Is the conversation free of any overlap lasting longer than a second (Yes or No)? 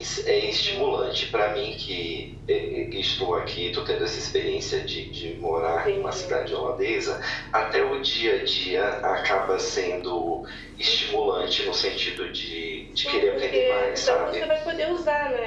No